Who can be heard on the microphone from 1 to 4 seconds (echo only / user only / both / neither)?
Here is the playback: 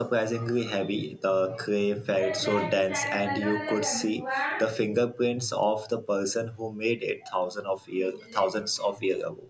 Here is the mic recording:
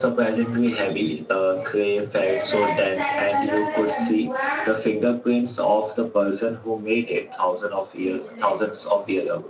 echo only